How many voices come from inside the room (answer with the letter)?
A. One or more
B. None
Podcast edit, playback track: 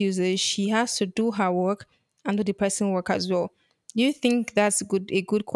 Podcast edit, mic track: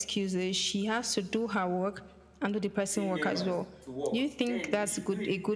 A